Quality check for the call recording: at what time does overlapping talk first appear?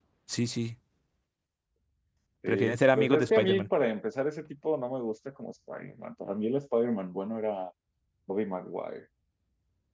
2.5 s

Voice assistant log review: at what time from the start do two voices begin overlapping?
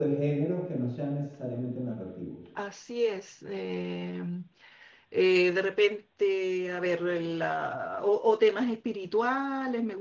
none

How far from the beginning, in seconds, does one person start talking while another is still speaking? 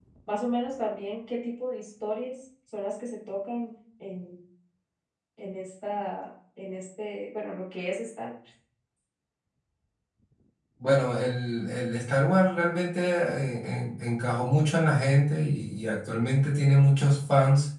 none

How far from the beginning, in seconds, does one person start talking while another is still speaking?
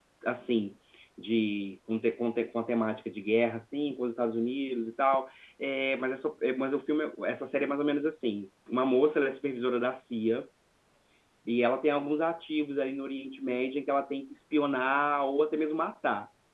none

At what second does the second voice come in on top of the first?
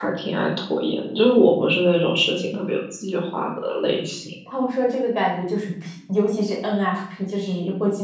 none

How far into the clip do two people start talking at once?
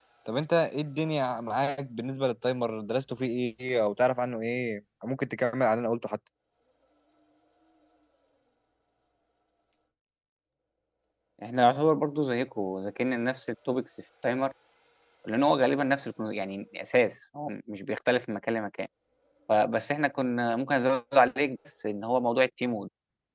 none

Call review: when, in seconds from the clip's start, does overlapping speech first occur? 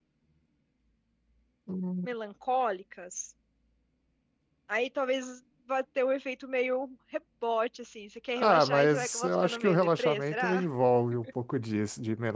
8.4 s

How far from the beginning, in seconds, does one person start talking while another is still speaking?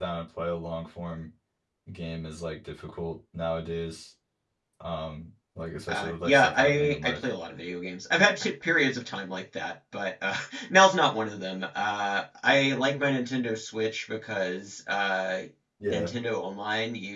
5.9 s

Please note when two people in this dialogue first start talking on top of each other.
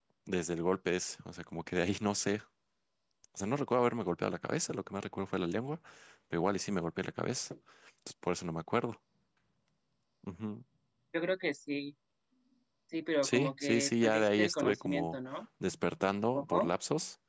13.2 s

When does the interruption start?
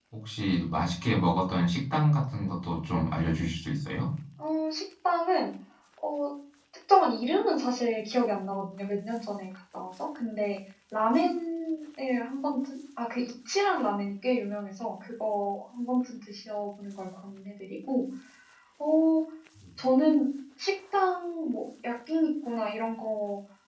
none

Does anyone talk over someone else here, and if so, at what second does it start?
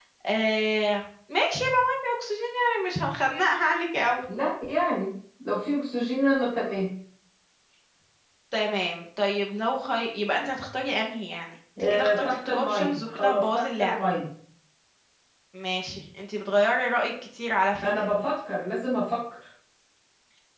11.8 s

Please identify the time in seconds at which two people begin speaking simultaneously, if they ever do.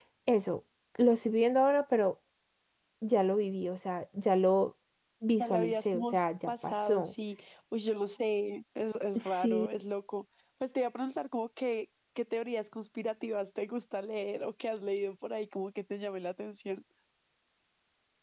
5.4 s

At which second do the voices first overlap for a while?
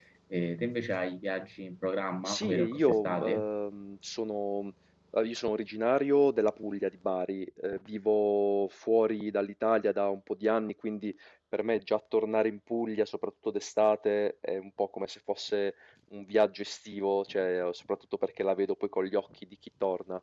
2.2 s

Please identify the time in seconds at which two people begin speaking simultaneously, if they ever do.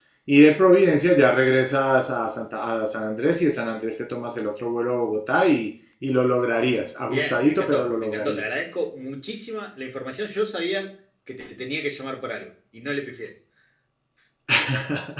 7.1 s

